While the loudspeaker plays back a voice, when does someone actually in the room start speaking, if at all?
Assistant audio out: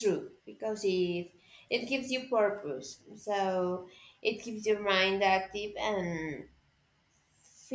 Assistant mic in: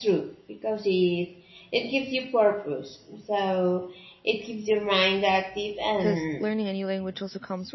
5.9 s

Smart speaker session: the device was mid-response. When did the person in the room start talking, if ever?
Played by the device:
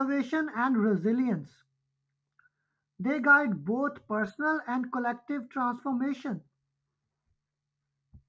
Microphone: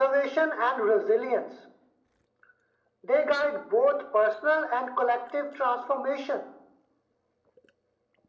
none

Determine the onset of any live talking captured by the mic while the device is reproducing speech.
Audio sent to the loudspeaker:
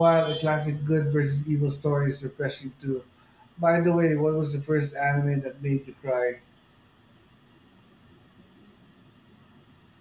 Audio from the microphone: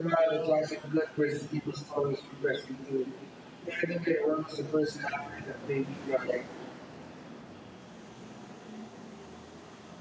none

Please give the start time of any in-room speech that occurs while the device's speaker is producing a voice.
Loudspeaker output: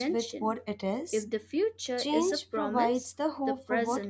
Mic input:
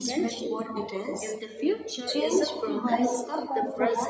none

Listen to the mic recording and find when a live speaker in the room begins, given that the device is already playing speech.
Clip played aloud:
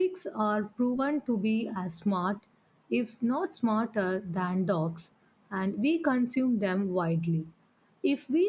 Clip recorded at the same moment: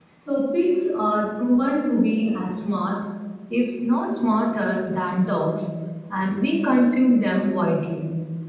none

